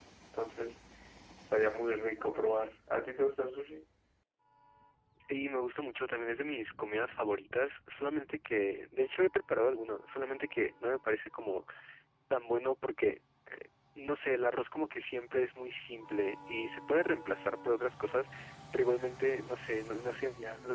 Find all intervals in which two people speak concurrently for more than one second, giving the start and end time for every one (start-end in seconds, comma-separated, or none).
none